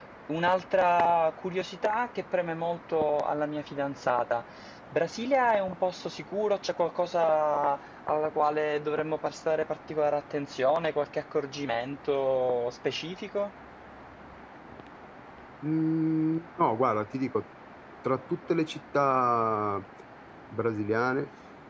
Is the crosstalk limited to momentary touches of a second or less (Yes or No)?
Yes